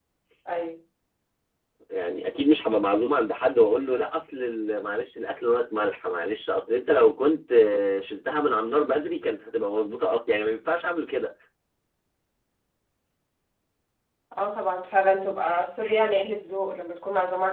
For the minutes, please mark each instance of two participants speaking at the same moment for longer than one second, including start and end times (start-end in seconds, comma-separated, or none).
none